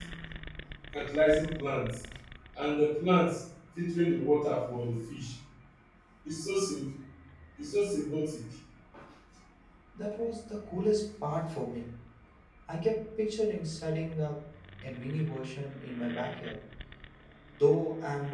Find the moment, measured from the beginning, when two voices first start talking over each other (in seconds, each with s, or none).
none